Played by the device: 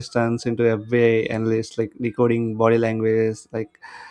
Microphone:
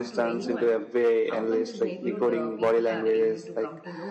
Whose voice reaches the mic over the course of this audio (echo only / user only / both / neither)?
both